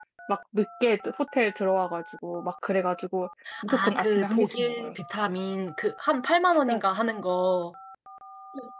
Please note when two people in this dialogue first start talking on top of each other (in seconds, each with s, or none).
3.6 s